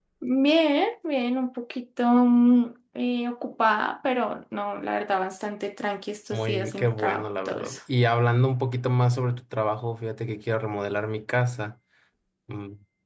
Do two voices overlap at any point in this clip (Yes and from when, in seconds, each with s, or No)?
Yes, from 6.3 s